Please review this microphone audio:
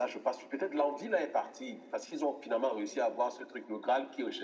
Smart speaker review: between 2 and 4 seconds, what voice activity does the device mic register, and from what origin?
echo only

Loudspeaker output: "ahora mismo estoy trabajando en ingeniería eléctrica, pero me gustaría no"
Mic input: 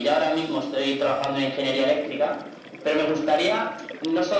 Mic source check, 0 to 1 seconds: echo only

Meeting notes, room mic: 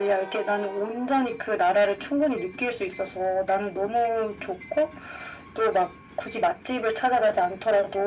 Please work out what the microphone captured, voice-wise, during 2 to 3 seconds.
echo only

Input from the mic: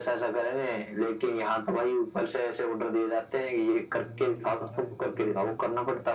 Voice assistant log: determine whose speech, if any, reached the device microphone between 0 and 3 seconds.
echo only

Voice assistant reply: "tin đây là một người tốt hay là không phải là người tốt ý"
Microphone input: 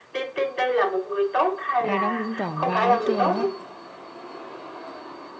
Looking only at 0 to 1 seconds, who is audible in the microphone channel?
echo only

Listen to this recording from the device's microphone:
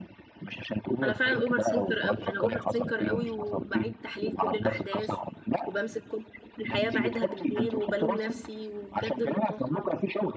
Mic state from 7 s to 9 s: both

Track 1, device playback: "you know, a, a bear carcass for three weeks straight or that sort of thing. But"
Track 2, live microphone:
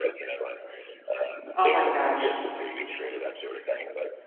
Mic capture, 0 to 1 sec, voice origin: echo only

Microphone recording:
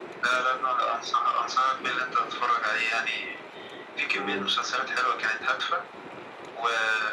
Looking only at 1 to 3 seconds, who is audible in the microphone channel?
echo only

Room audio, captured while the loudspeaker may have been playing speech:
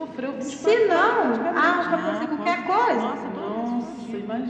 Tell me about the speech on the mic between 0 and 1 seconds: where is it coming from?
echo only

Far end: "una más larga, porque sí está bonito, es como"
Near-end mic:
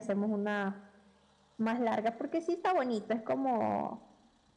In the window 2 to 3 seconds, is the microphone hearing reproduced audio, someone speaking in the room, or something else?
echo only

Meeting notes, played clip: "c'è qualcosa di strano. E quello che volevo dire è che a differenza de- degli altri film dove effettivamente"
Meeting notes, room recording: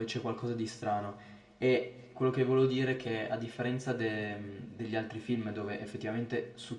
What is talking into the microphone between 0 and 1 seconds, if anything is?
echo only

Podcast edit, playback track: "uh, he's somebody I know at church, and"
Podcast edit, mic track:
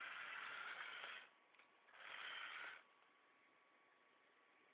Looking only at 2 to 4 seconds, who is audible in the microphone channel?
neither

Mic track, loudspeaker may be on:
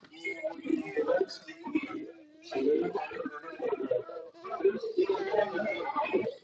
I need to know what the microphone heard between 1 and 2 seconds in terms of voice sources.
echo only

